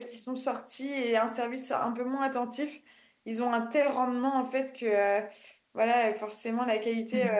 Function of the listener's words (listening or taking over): listening